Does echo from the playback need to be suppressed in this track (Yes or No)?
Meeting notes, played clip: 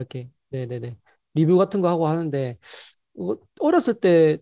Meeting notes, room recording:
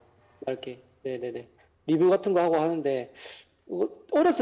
Yes